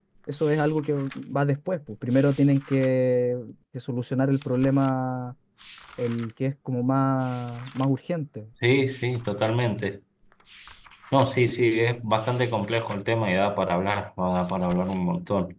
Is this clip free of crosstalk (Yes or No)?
Yes